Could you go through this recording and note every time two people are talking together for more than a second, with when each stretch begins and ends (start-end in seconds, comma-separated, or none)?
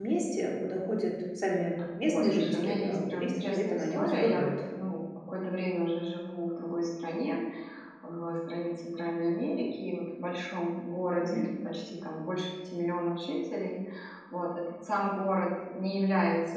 2.0-4.5